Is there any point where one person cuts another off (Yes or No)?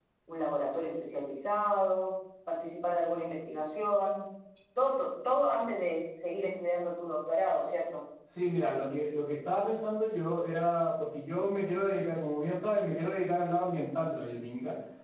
No